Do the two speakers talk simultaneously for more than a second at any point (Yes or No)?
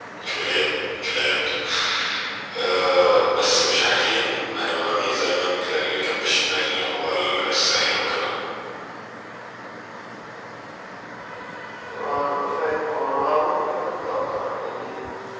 No